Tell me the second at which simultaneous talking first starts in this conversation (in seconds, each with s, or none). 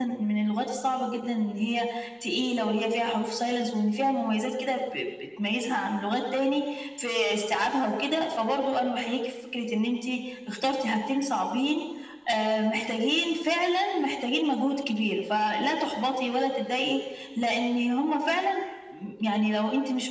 none